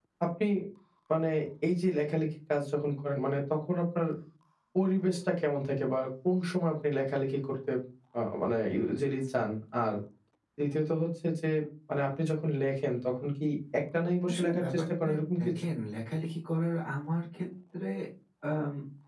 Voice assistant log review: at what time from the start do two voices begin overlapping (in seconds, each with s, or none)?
14.3 s